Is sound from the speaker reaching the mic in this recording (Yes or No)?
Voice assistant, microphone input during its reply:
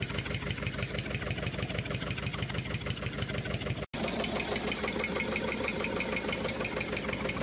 No